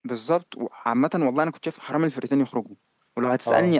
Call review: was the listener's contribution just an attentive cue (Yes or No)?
Yes